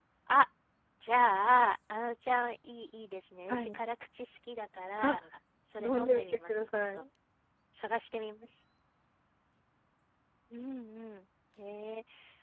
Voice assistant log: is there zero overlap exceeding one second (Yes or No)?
No